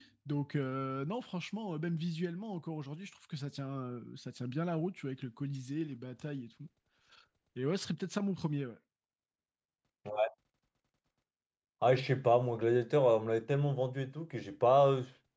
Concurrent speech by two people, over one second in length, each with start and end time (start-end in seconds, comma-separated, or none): none